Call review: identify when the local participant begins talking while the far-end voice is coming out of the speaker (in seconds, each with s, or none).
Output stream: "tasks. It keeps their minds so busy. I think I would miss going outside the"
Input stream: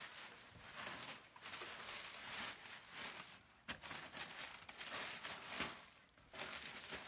none